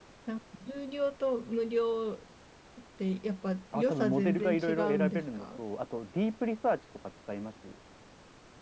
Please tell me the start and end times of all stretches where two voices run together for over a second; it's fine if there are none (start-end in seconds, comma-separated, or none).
3.7-5.5